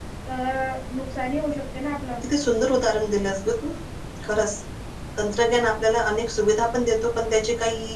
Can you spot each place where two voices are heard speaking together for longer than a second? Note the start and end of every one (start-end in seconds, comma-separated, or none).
none